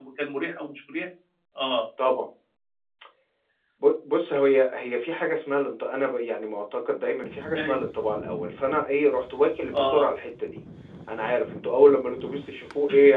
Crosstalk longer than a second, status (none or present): none